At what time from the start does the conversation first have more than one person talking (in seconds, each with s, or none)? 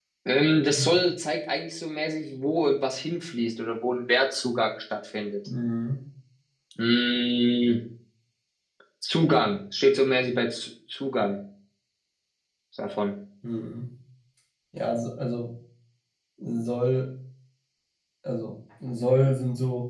none